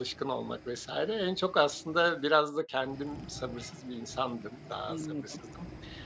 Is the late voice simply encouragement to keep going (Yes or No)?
Yes